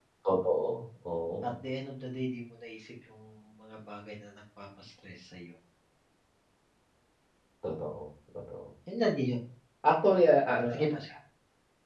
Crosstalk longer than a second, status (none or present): none